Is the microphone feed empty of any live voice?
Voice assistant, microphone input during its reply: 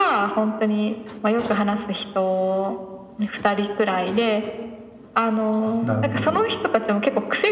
No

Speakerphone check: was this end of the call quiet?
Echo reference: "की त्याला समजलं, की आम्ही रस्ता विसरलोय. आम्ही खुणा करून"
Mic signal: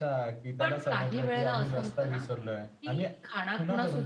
No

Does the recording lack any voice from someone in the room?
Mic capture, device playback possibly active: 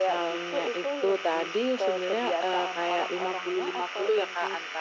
Yes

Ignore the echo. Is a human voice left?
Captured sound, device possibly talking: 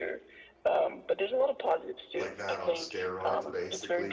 Yes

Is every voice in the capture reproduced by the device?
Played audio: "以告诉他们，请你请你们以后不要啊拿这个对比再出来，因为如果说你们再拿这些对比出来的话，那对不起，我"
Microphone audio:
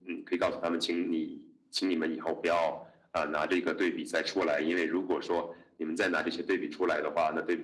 Yes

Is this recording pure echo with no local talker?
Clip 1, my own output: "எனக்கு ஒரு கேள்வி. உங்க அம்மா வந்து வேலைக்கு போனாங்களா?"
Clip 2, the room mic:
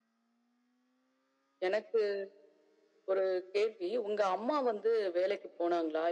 Yes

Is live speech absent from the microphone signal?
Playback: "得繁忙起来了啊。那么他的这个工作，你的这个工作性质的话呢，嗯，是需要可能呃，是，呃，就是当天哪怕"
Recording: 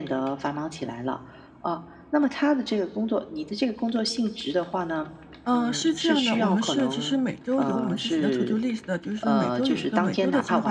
No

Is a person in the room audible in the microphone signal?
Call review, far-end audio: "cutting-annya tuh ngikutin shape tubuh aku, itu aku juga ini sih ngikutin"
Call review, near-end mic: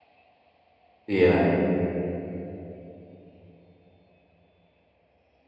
Yes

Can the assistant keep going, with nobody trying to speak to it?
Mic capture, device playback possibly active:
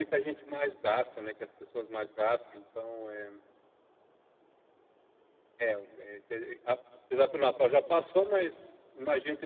Yes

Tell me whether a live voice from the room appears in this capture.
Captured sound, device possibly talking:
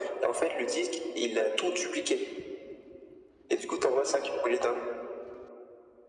No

